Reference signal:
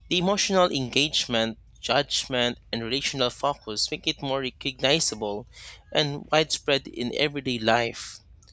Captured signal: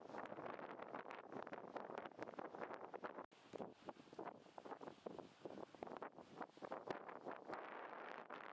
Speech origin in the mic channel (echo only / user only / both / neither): neither